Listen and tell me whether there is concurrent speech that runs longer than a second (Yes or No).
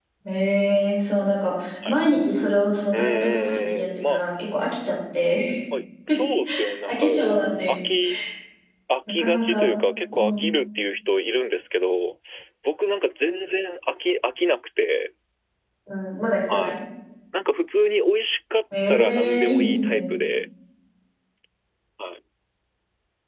Yes